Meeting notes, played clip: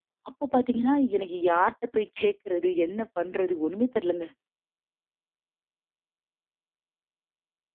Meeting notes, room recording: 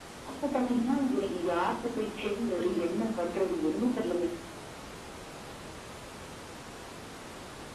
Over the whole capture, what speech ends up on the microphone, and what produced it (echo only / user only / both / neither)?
both